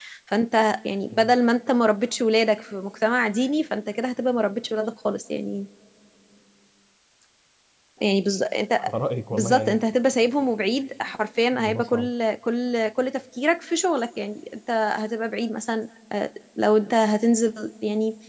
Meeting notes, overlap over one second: none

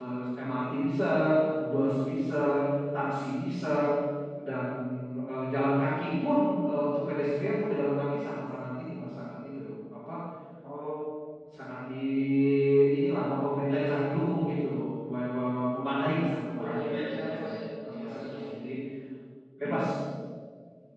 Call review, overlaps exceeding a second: present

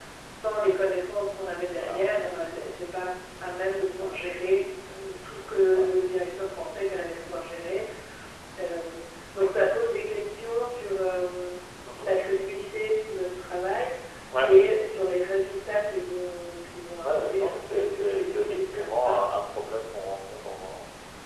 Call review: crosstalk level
present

